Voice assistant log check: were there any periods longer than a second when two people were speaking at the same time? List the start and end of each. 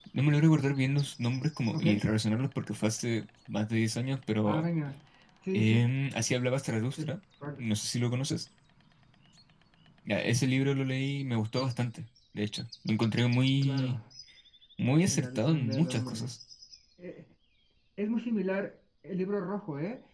15.1-16.3

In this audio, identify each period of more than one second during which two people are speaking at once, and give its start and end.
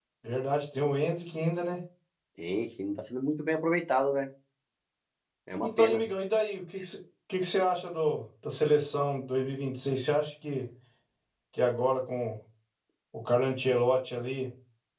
none

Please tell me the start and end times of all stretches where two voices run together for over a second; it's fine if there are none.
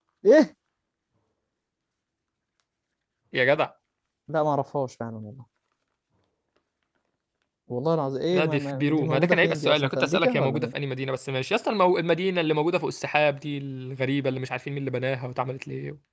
8.3-10.7

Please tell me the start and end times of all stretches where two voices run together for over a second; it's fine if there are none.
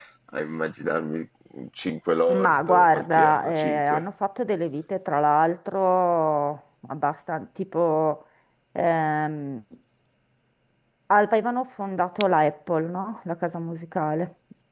2.3-4.0

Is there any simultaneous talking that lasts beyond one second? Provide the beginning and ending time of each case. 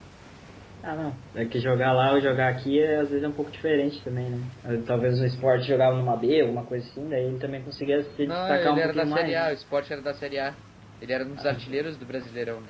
8.2-9.5

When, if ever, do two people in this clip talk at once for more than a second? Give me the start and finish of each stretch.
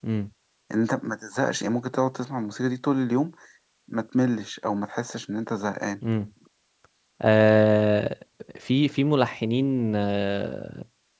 none

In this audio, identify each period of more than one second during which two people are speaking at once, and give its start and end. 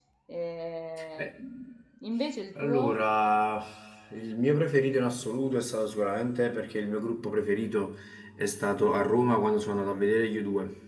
none

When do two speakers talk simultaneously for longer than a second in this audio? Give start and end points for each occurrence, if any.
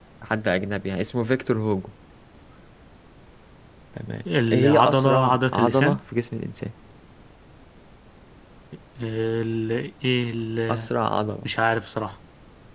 4.5-6.0

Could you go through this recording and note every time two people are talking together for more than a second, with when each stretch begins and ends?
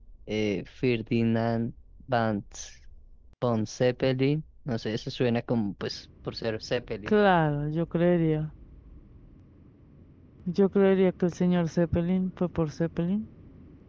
none

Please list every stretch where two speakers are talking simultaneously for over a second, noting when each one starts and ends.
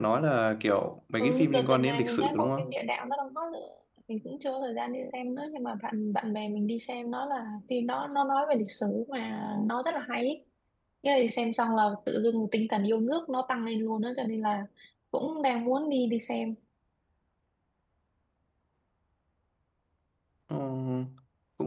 1.2-2.7

